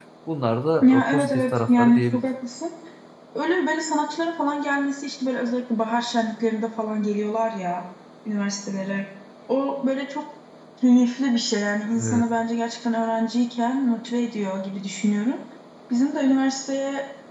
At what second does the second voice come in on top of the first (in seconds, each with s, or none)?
0.8 s